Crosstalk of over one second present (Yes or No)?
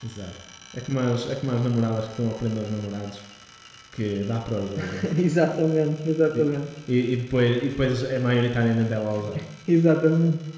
No